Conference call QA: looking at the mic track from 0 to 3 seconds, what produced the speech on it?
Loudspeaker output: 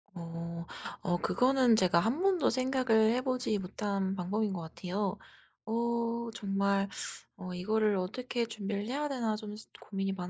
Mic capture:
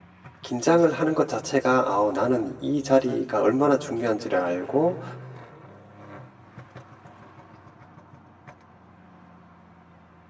user only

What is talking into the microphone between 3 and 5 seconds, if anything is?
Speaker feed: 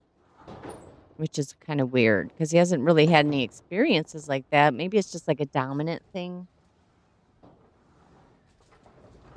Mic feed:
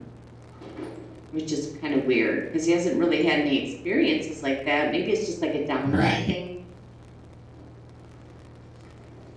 echo only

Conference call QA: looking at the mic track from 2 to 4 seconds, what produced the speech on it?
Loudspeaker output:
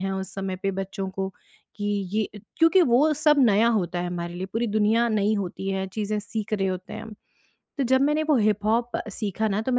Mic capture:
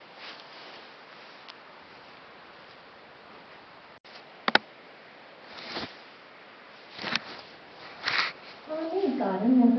neither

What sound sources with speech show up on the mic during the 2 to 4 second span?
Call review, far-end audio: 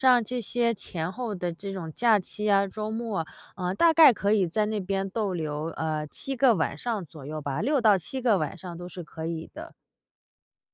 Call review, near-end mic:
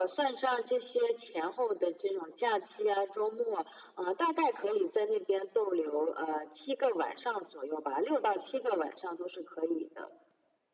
echo only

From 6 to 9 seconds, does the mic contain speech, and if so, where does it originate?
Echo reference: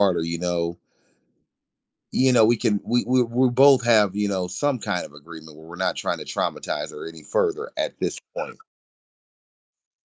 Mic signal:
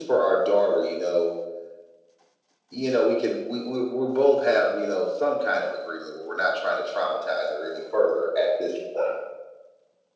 echo only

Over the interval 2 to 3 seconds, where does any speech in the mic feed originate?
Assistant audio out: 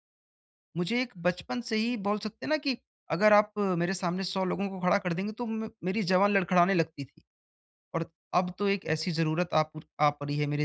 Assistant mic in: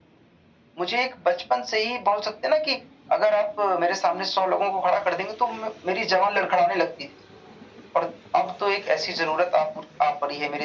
echo only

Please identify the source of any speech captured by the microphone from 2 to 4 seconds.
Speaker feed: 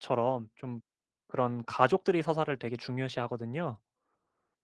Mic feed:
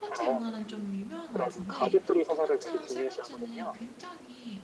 both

